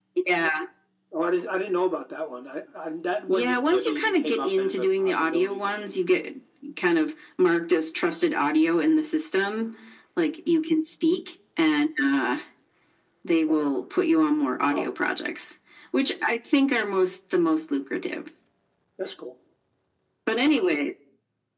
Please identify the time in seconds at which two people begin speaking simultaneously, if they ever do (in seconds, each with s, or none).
3.3 s